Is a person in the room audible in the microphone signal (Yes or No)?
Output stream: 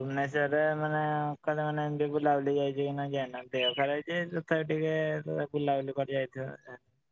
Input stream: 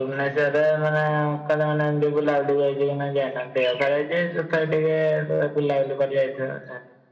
No